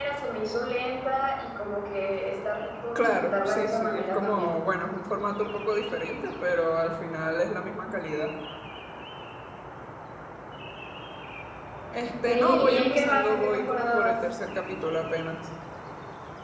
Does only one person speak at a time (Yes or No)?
No